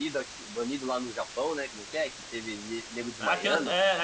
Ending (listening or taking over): taking over